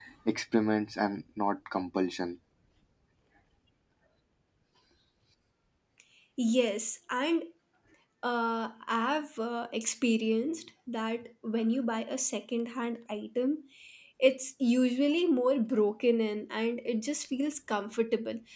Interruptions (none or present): none